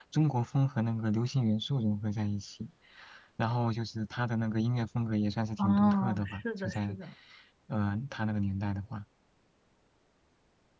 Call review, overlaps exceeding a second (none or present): present